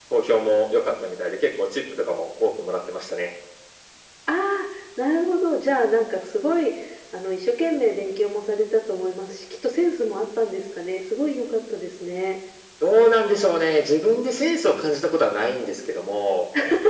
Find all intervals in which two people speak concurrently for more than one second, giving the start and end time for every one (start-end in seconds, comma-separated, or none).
none